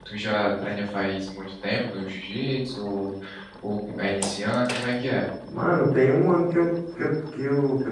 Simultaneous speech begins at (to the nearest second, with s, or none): none